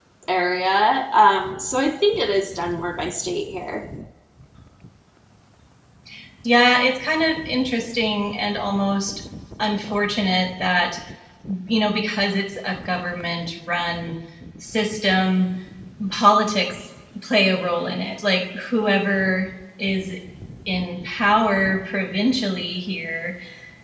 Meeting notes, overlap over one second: none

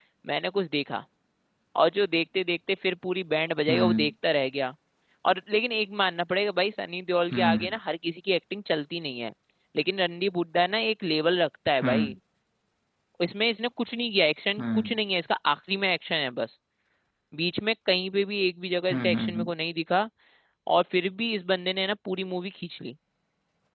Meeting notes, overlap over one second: none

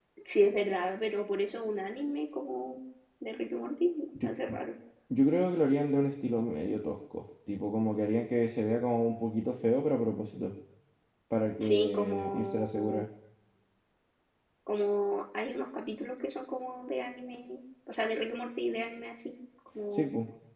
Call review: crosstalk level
present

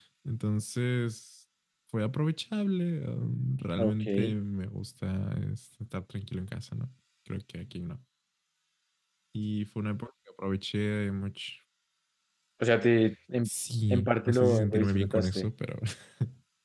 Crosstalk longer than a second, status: present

